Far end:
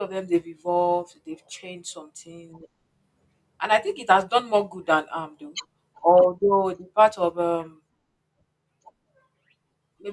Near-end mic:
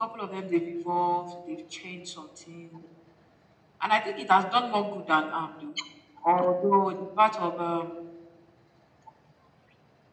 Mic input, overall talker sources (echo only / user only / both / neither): echo only